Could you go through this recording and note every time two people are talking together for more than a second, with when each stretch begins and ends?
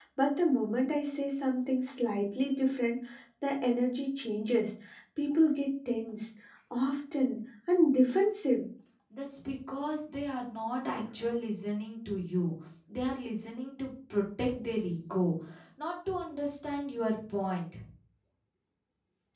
none

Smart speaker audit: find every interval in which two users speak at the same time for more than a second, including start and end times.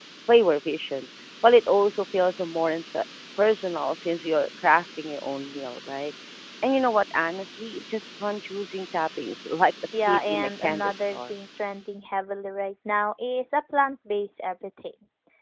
10.0-11.4

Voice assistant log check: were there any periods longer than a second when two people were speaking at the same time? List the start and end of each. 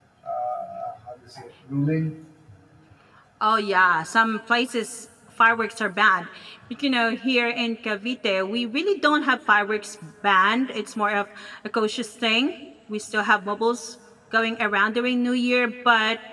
none

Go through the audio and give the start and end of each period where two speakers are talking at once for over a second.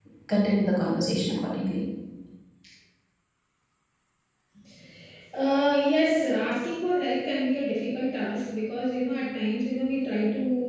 none

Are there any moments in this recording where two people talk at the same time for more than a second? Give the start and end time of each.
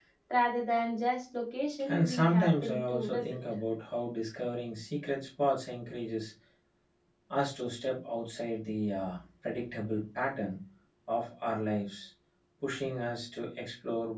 1.9-3.4

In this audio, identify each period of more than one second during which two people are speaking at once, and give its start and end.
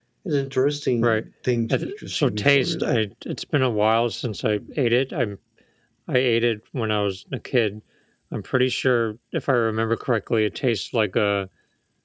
1.7-3.0

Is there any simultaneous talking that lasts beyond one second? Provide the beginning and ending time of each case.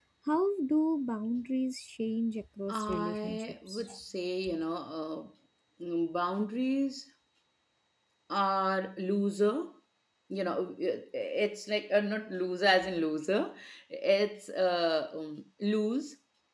2.7-3.9

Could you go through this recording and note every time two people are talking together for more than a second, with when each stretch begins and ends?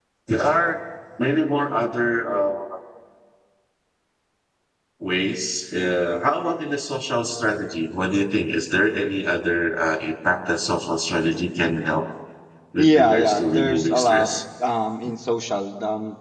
12.8-14.3

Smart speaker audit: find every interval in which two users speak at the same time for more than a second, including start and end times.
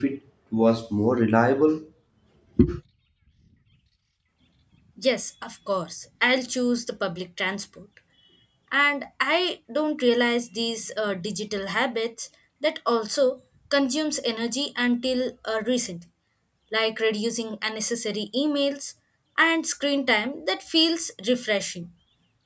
none

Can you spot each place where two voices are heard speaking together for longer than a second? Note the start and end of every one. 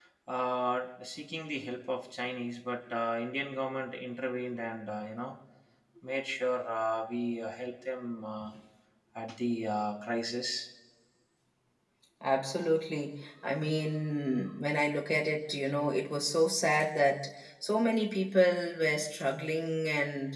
none

